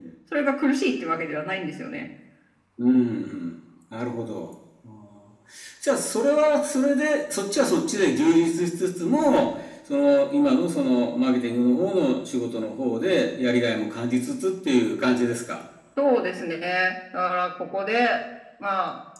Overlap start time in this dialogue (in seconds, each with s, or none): none